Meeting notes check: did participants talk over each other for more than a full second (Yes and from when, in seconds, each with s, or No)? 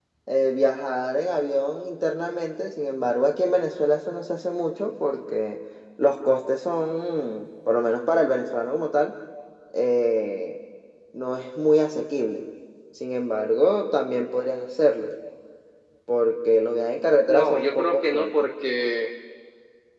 Yes, from 17.3 s